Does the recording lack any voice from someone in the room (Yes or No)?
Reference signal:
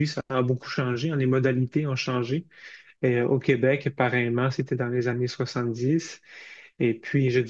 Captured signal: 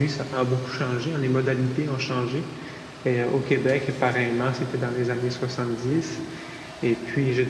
Yes